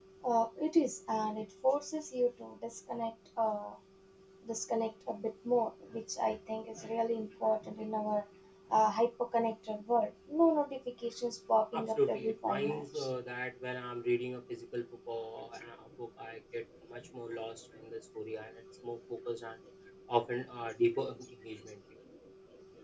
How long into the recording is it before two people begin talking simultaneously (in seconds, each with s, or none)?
11.7 s